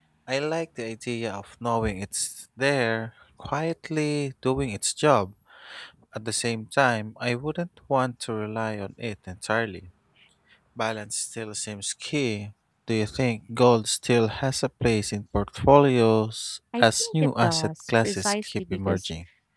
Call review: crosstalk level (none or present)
present